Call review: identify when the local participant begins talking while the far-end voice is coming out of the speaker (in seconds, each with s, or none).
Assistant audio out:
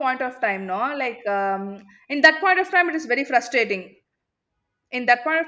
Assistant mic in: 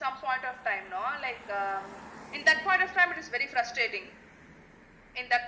none